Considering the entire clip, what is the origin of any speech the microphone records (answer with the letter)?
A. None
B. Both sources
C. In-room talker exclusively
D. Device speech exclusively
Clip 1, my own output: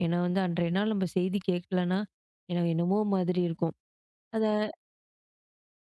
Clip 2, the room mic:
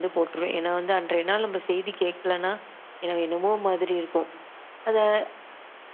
D